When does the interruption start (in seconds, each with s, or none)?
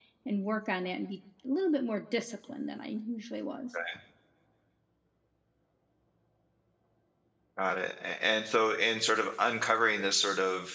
none